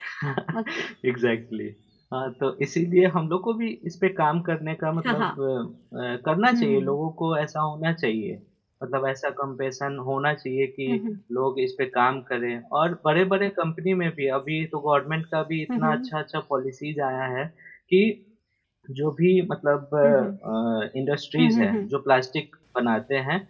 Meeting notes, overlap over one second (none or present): none